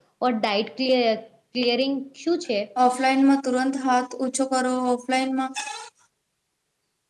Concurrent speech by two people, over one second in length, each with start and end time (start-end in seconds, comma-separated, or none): none